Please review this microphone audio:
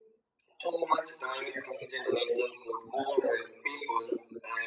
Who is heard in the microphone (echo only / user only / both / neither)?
echo only